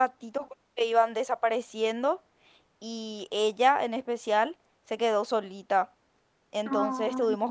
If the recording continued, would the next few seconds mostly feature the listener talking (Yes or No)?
No